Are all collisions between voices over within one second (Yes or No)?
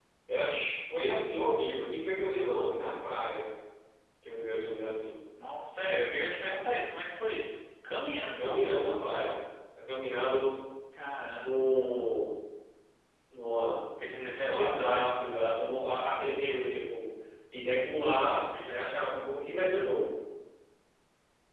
Yes